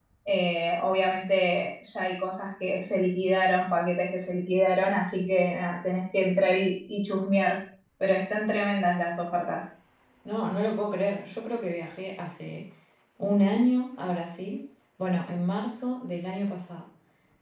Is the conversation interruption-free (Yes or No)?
Yes